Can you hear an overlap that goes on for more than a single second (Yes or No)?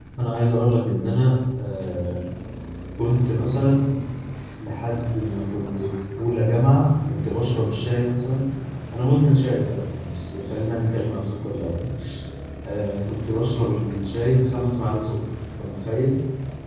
No